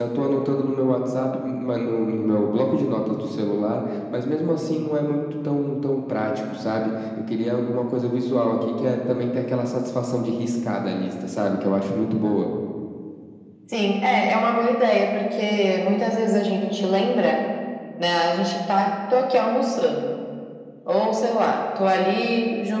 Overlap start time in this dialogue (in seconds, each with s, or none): none